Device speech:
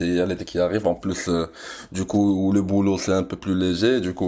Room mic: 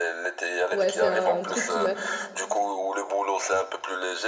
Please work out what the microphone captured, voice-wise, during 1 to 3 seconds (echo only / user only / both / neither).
both